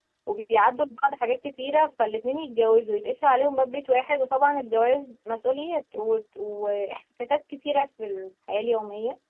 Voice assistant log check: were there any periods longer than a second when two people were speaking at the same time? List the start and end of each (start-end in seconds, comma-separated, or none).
none